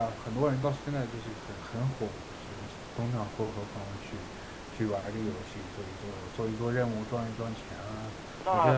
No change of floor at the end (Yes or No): No